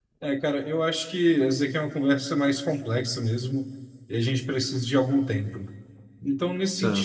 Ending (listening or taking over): listening